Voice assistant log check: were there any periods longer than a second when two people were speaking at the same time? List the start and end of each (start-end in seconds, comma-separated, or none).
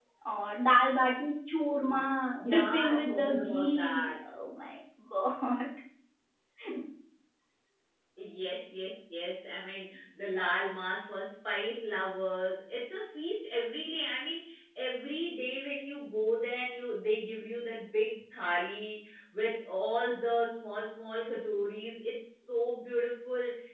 2.5-4.1